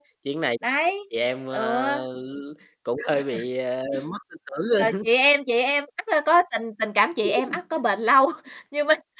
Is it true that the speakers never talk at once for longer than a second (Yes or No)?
Yes